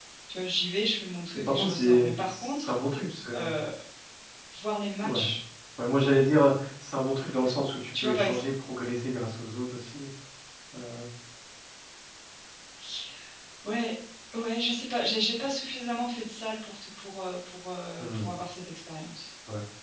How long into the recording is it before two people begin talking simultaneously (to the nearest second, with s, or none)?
1 s